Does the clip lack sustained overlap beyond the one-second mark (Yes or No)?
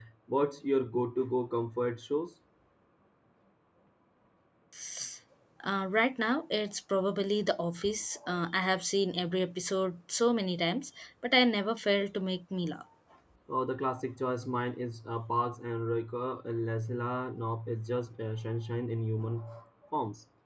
Yes